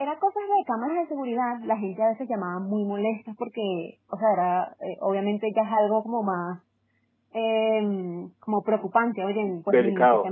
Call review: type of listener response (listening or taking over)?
taking over